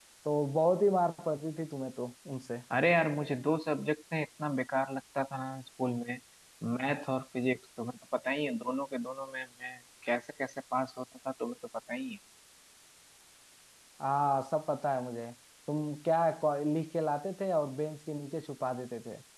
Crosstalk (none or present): none